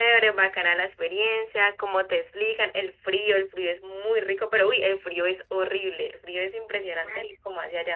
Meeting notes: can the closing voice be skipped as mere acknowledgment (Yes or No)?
No